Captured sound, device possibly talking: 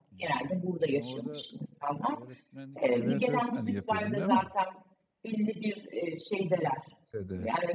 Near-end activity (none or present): present